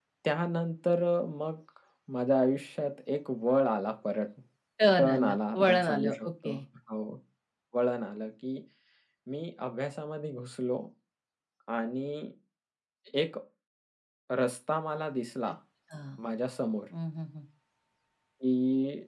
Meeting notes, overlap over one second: present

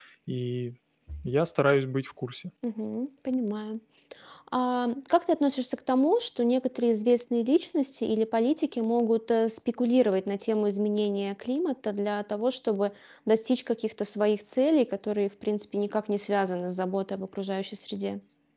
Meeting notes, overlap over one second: none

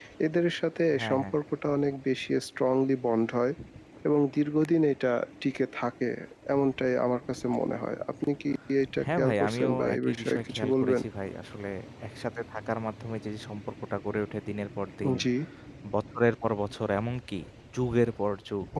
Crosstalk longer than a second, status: present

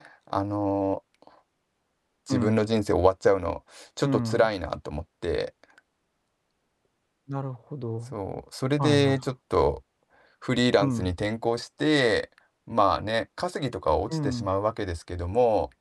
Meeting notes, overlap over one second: none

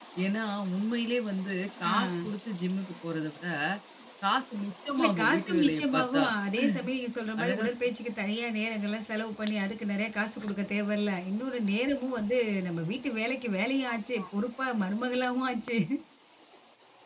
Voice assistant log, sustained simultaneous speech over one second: present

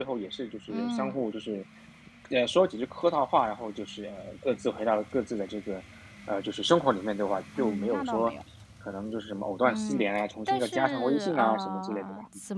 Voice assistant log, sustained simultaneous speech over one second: present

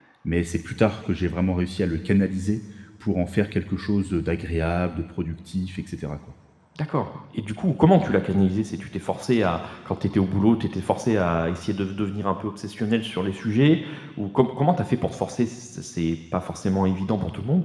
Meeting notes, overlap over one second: none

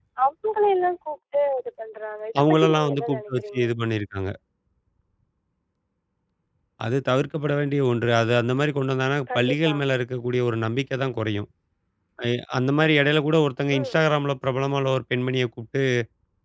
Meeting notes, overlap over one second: present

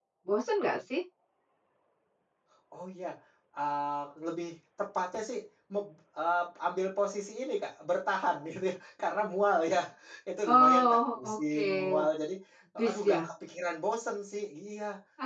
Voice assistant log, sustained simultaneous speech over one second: present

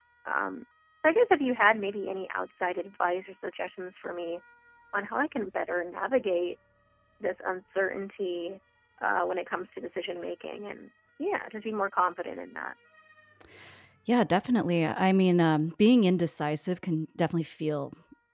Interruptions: none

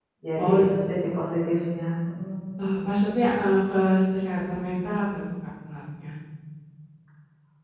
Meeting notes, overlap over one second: none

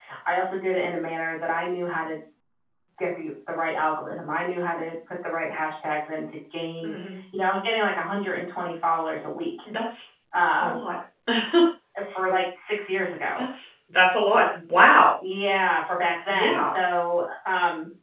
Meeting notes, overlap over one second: none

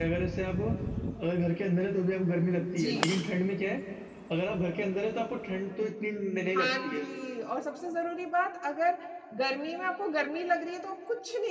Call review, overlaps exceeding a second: none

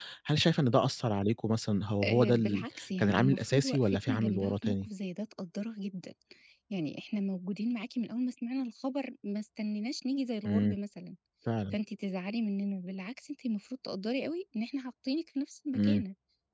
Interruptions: present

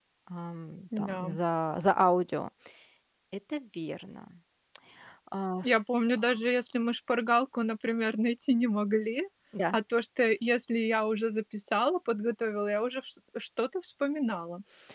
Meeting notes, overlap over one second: none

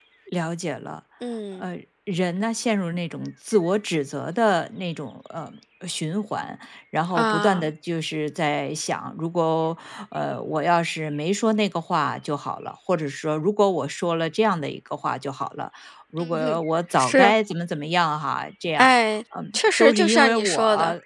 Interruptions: present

